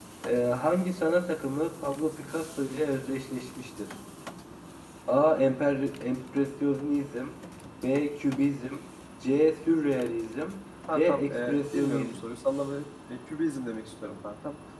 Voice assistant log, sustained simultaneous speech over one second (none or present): present